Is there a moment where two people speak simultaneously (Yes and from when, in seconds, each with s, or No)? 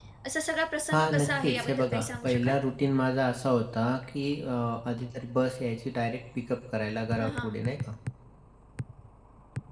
Yes, from 0.9 s